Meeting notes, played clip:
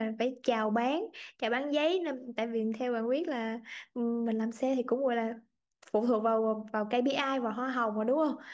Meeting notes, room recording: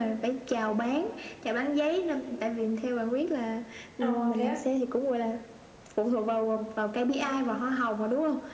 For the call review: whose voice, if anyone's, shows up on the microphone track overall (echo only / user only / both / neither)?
both